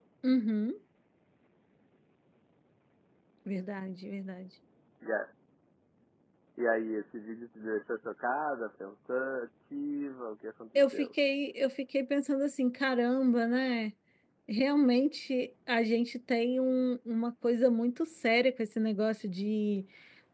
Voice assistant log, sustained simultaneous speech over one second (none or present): none